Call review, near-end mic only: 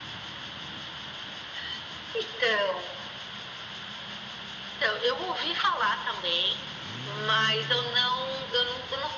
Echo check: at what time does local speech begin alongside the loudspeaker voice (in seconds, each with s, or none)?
none